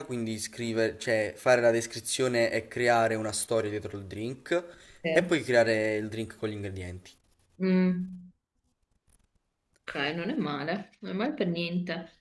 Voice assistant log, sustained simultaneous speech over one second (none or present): none